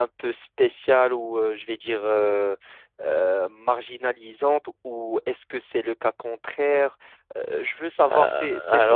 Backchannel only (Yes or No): No